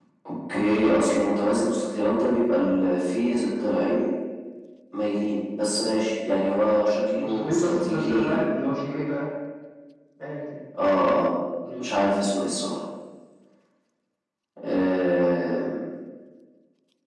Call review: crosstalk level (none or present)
present